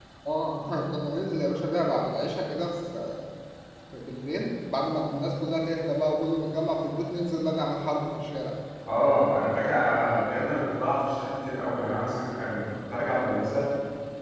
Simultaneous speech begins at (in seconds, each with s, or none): none